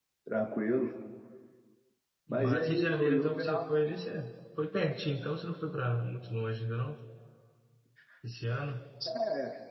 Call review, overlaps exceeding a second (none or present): present